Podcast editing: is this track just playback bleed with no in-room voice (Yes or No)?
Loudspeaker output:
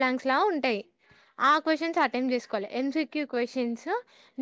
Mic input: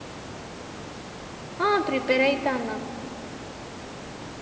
No